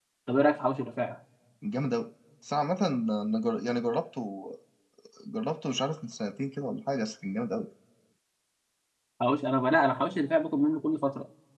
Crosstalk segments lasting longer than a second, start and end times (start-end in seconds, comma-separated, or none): none